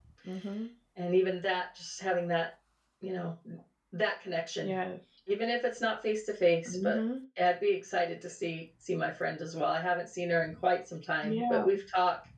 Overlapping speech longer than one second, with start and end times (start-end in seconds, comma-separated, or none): none